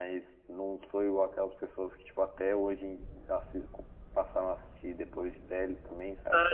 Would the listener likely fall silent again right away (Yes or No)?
No